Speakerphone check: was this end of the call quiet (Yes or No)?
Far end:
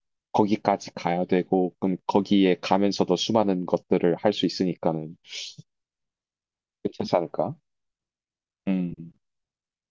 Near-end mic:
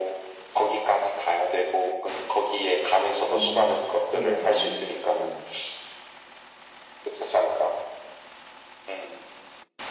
No